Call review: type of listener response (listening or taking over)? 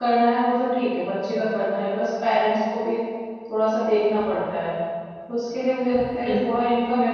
listening